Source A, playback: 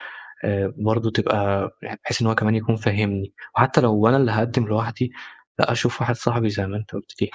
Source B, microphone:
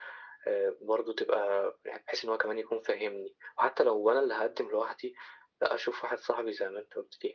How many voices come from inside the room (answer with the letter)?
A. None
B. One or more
A